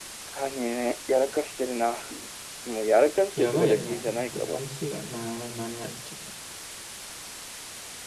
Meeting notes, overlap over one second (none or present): present